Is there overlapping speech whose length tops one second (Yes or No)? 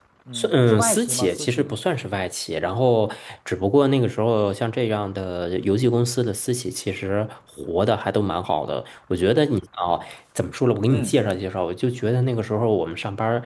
Yes